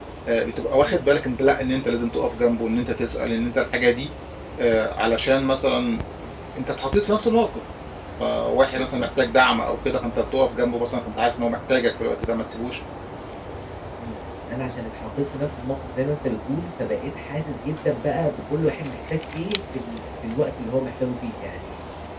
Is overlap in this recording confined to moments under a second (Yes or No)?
Yes